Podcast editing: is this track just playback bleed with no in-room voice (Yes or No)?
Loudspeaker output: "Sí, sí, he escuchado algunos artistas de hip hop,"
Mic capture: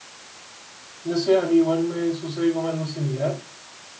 No